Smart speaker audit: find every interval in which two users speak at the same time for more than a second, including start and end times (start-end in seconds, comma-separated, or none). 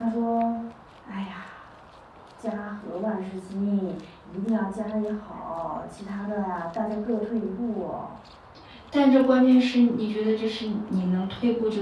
none